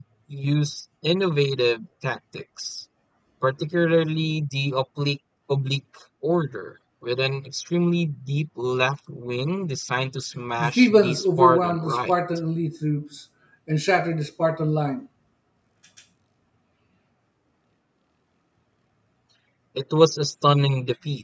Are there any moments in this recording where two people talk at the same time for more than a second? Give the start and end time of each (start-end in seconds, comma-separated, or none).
10.6-12.1